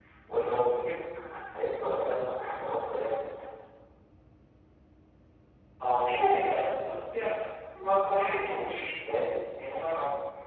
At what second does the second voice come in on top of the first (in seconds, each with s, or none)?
none